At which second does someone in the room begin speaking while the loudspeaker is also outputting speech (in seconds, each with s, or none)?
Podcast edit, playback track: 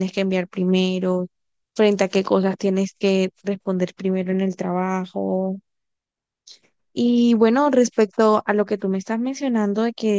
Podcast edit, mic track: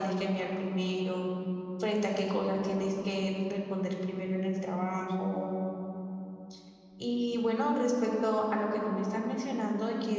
none